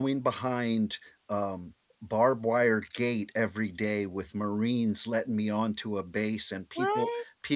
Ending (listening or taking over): listening